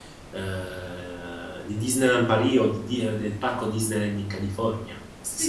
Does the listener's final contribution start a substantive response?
Yes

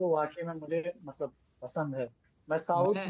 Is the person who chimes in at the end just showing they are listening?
Yes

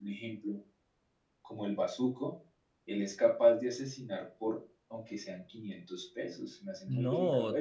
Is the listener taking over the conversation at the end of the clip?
Yes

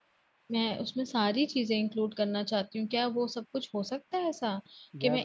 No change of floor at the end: Yes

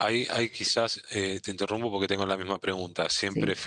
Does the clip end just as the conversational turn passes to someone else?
No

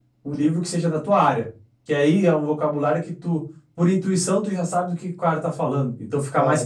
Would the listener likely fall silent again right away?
Yes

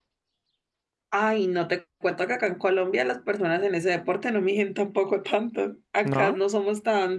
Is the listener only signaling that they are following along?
Yes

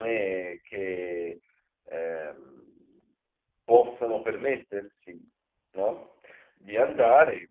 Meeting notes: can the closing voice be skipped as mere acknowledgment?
Yes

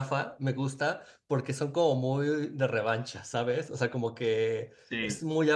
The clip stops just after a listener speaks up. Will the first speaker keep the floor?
Yes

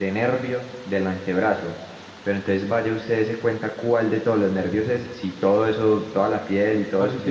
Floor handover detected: No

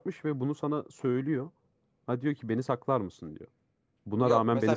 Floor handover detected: Yes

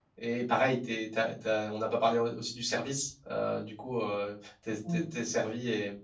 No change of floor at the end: Yes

